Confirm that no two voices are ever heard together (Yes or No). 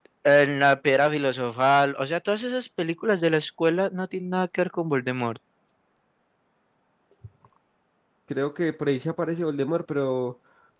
Yes